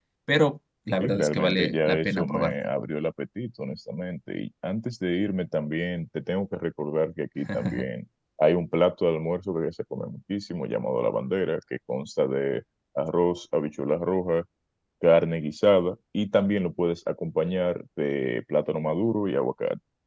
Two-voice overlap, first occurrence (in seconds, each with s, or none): 1.0 s